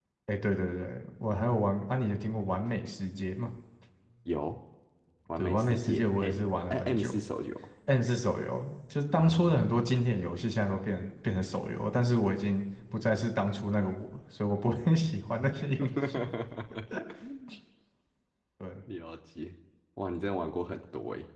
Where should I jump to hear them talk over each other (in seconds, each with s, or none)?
5.4 s